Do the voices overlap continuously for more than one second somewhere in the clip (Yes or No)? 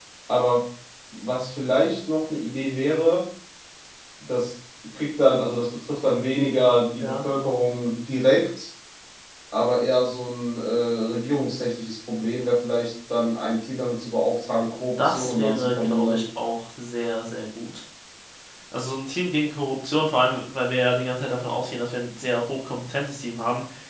Yes